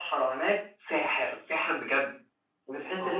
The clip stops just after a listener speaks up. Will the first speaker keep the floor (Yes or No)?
Yes